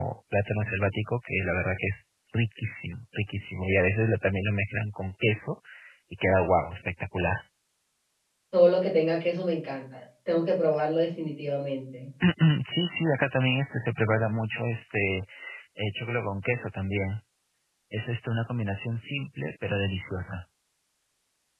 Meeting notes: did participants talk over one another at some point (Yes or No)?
No